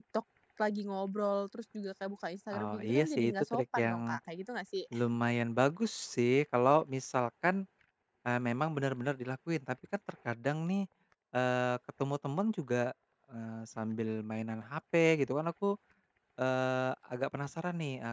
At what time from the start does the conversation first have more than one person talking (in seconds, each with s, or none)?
2.5 s